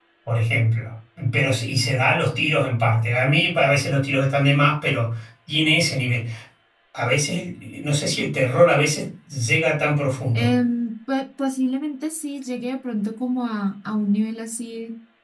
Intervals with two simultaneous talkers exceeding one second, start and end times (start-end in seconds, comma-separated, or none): none